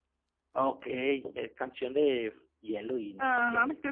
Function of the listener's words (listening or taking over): taking over